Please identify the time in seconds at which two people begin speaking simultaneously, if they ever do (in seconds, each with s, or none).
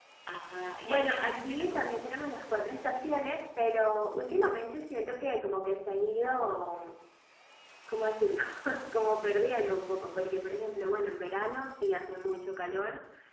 0.8 s